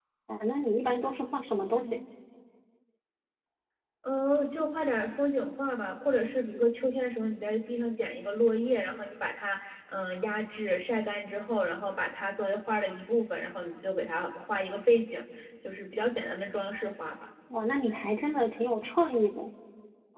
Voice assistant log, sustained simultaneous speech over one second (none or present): none